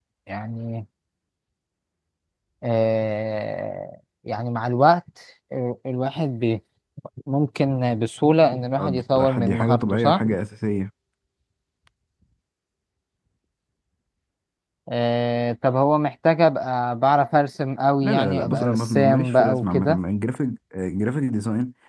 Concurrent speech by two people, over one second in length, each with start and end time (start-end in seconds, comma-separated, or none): 8.8-10.2, 18.0-20.0